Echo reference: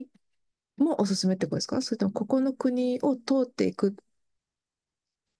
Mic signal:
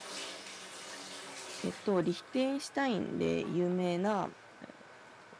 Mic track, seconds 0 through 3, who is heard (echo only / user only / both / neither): user only